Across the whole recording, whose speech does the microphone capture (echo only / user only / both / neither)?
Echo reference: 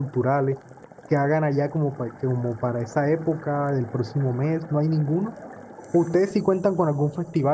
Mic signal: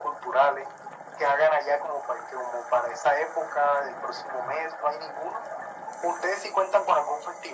echo only